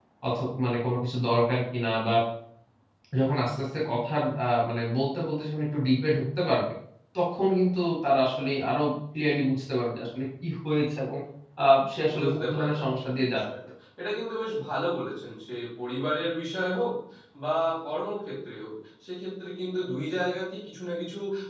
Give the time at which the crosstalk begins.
12.2 s

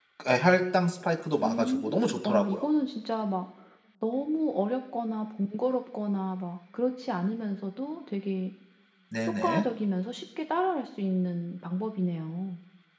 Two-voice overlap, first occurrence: 1.4 s

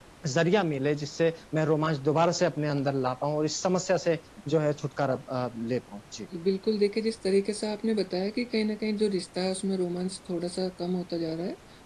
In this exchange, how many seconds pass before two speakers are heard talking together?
none

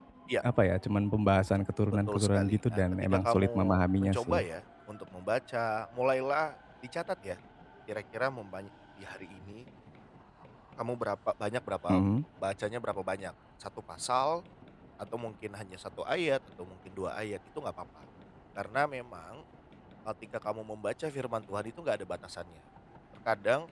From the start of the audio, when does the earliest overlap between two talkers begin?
2.1 s

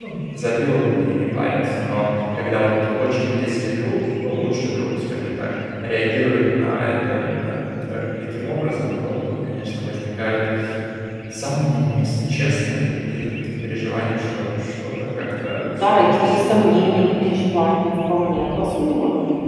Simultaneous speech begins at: 15.6 s

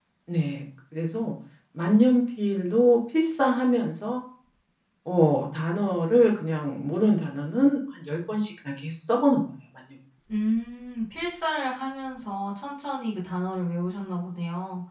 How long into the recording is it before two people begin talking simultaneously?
none

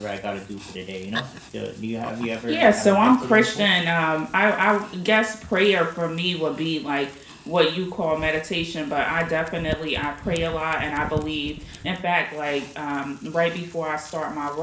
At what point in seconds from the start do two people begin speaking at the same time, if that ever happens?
2.5 s

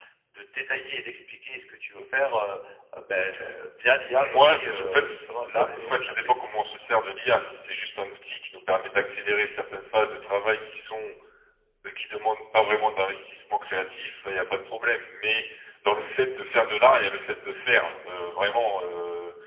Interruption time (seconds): 4.1 s

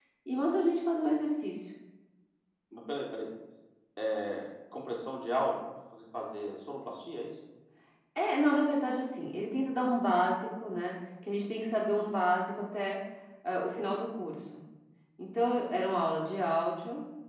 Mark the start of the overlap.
none

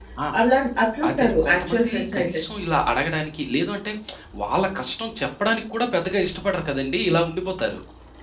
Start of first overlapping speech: 1.1 s

